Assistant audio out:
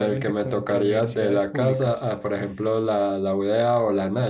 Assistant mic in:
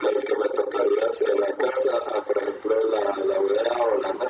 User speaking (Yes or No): No